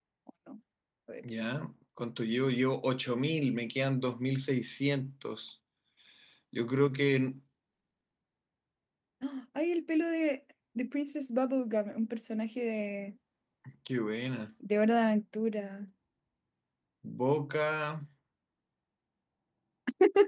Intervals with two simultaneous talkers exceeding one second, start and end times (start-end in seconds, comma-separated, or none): none